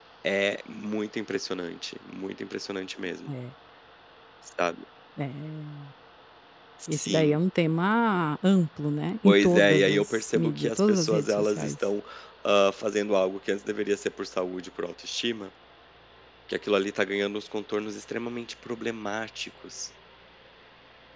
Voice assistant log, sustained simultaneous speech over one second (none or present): present